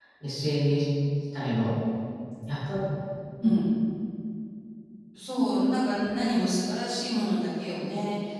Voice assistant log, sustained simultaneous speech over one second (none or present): none